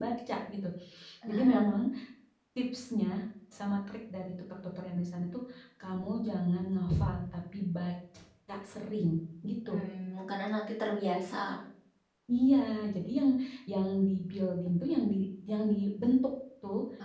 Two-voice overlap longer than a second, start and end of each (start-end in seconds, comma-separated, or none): none